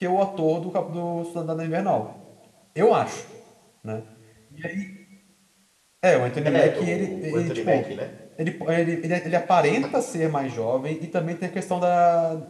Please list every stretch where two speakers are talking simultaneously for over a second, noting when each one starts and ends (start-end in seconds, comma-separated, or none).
6.5-7.8